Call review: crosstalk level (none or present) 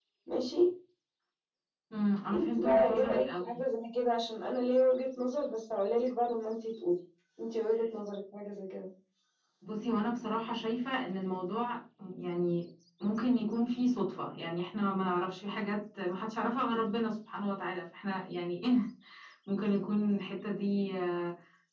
present